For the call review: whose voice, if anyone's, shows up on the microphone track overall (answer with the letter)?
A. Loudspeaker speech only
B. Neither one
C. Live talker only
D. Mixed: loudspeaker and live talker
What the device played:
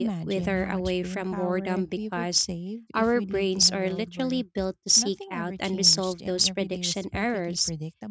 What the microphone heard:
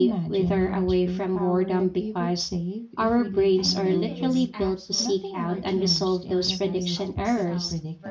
D